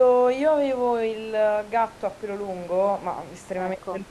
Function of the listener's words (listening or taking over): listening